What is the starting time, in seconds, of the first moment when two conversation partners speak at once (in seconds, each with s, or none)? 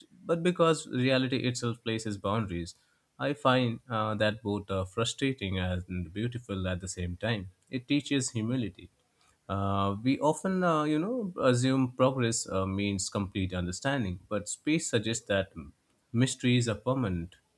none